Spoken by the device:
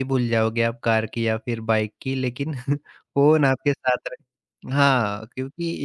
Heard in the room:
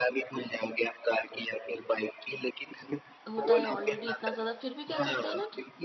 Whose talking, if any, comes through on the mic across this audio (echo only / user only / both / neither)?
both